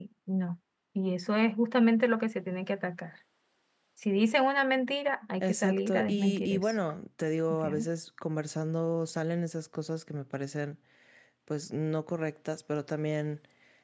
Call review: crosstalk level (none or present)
present